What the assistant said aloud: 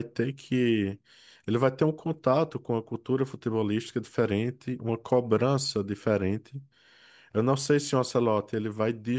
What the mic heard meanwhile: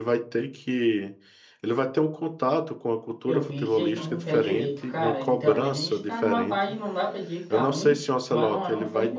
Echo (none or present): present